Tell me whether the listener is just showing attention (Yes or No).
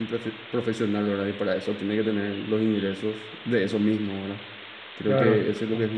Yes